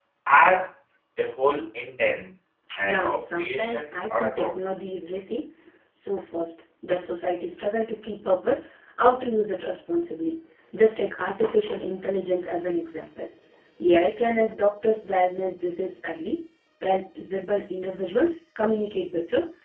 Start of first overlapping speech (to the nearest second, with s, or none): 3 s